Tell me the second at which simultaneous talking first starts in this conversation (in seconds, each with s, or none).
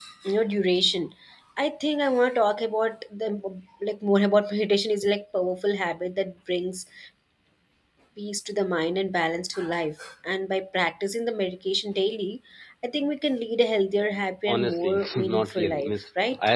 14.5 s